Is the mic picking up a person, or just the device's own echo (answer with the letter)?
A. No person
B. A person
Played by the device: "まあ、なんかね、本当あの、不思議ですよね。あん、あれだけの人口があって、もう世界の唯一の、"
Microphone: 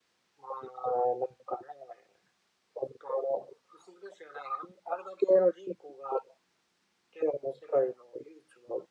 A